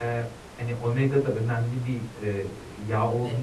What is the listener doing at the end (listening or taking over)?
listening